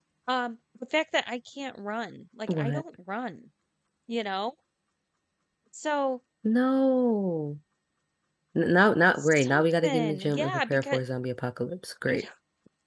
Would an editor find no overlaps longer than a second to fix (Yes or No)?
No